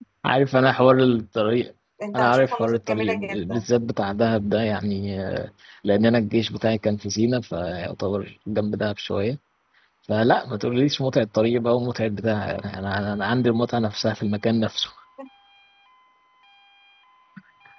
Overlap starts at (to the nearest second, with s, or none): 2 s